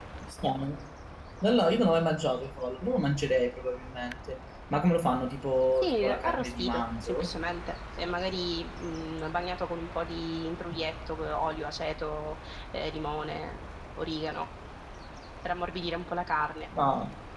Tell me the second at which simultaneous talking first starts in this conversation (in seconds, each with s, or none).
5.8 s